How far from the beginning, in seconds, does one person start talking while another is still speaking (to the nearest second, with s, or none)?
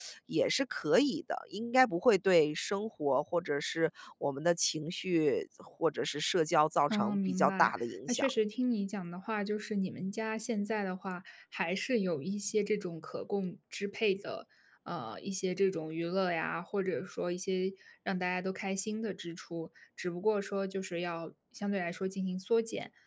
7 s